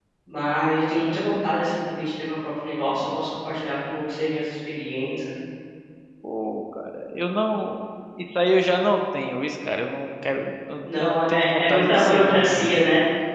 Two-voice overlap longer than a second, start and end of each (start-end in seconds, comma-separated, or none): 11.0-12.8